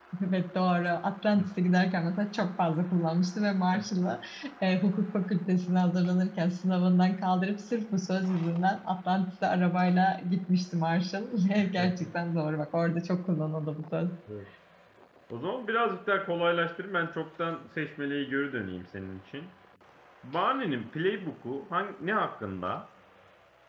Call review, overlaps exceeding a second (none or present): none